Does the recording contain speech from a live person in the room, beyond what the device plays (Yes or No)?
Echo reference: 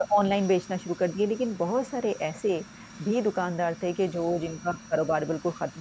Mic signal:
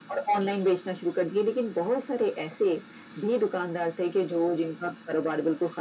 No